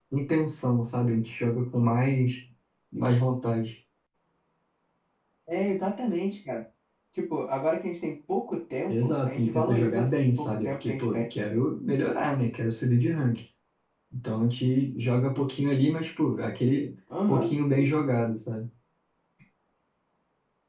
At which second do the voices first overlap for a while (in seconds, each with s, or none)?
8.9 s